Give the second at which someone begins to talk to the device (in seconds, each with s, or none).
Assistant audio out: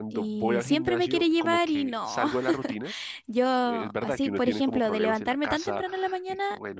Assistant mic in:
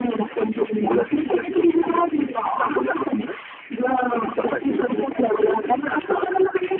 none